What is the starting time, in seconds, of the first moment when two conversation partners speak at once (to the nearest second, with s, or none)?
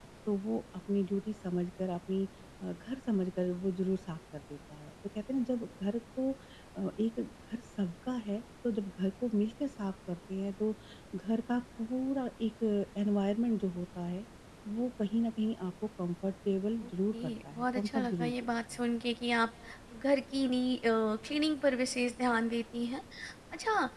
17 s